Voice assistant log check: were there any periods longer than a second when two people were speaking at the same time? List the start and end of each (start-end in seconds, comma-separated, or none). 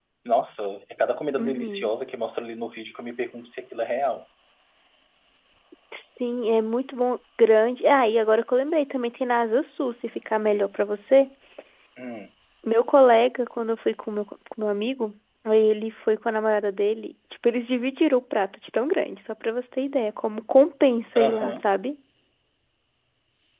none